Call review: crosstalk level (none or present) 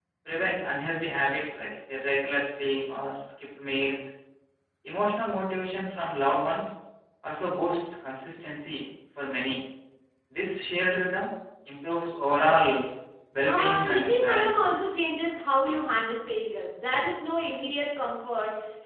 present